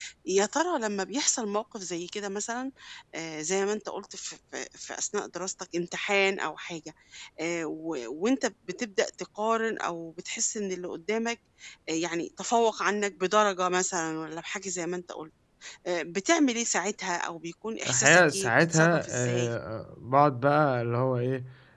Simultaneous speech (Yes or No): Yes